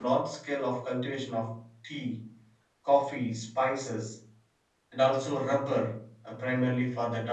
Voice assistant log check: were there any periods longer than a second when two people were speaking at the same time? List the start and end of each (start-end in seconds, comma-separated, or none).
none